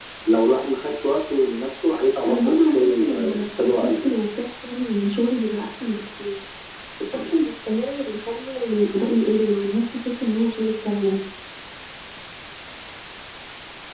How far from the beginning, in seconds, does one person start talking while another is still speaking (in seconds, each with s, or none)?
2.3 s